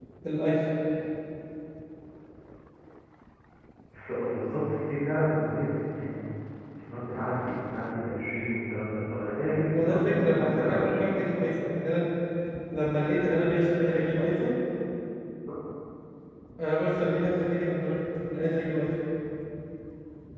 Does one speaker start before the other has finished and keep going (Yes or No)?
Yes